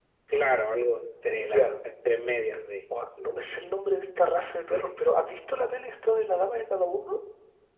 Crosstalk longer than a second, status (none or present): none